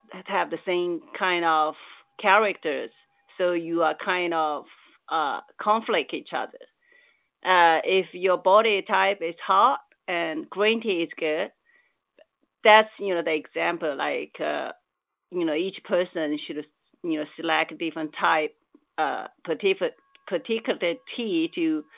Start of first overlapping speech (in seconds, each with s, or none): none